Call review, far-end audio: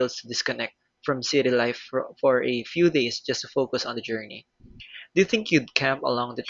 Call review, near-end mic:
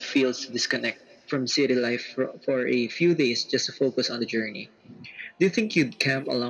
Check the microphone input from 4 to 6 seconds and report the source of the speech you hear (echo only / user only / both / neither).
echo only